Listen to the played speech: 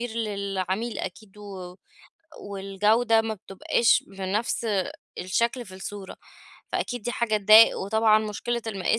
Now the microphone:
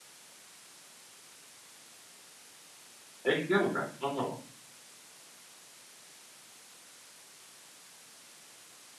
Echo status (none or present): none